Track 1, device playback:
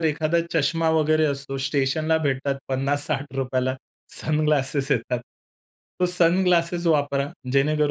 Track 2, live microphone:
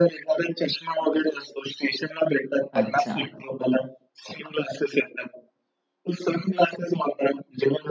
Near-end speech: present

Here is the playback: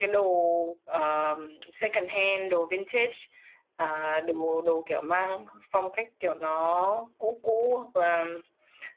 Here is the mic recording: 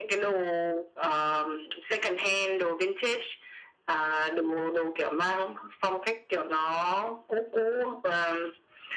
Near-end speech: none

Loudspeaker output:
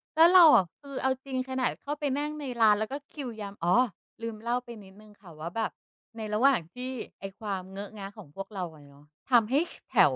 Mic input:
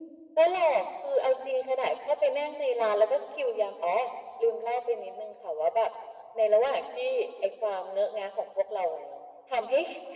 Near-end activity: none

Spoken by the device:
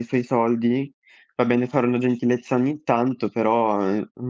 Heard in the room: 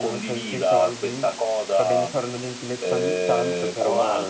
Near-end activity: present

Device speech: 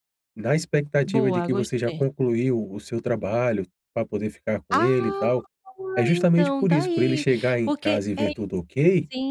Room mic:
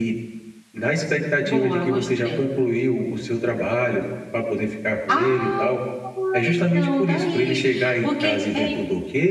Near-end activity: none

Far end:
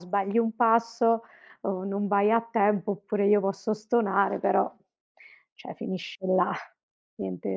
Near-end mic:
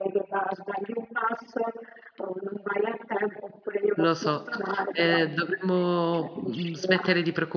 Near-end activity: present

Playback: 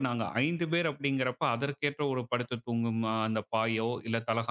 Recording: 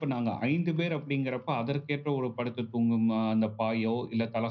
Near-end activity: none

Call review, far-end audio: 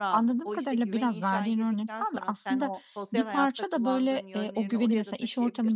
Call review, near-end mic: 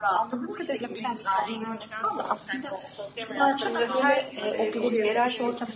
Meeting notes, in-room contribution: present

